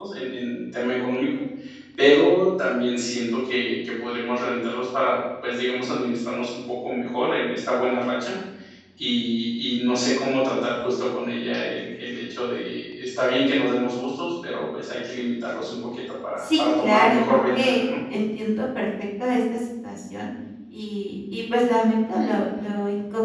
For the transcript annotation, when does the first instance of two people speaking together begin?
16 s

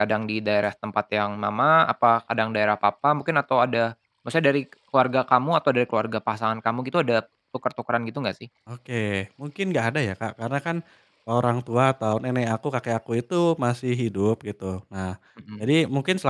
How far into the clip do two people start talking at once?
none

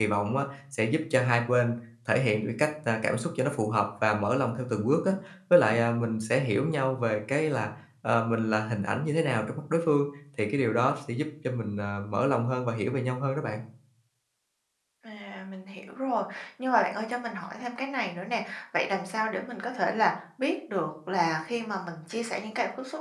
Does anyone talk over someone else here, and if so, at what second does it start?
none

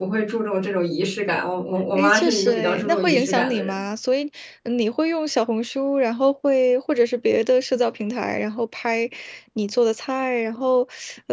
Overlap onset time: 2 s

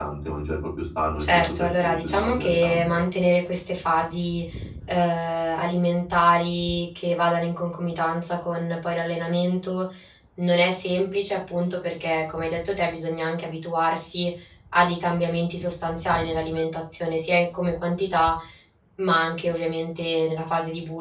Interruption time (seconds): 1 s

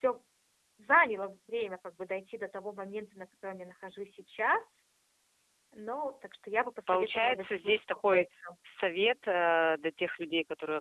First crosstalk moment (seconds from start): 7 s

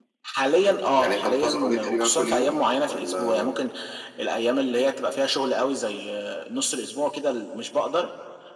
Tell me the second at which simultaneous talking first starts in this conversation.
1 s

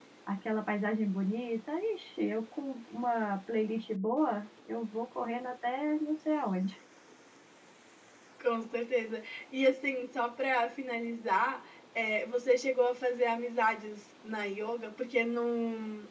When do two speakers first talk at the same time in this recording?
none

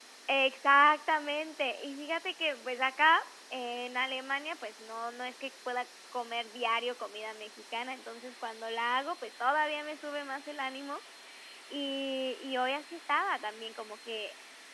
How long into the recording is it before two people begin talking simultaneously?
none

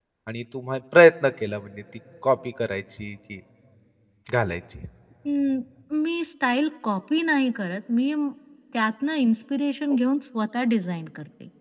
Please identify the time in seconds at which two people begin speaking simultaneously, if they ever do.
none

